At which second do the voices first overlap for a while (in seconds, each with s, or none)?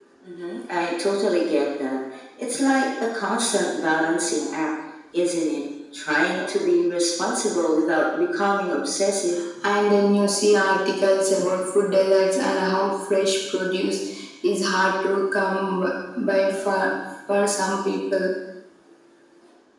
none